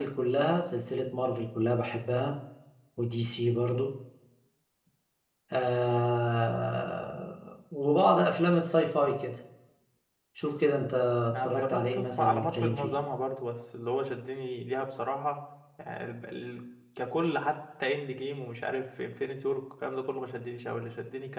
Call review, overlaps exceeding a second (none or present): present